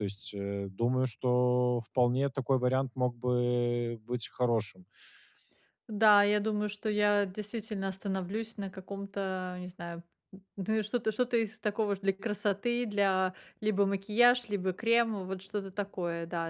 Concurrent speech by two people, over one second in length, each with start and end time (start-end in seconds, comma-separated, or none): none